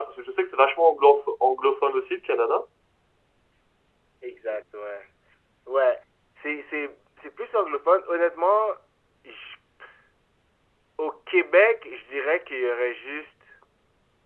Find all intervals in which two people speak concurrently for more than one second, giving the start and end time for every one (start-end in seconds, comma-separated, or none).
none